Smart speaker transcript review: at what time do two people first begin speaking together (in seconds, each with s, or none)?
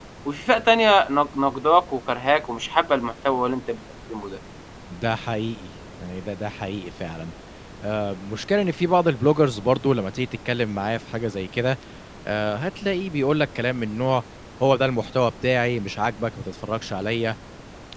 none